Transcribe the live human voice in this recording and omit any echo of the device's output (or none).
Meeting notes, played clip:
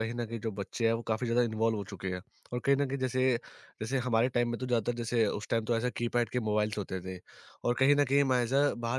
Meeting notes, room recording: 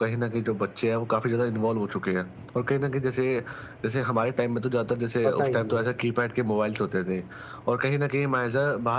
पता ही नहीं है।